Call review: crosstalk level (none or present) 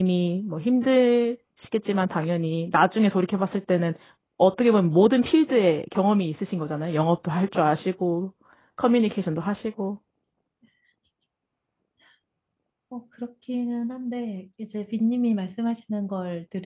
none